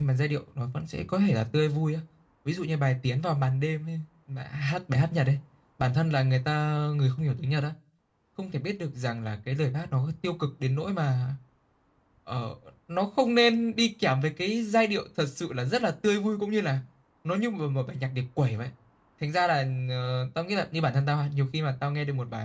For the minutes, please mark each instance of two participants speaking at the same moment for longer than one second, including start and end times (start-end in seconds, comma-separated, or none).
none